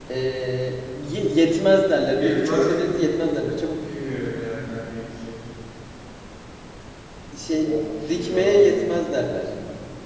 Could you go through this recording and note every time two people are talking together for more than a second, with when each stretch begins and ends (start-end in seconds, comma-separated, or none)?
7.6-9.1